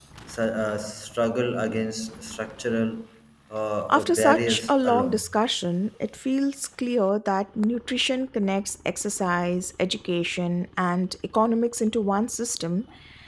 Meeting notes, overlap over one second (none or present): present